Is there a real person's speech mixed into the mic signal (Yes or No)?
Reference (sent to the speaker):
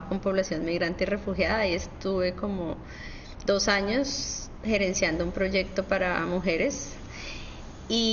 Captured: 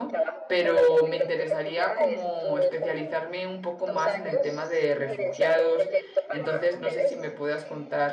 Yes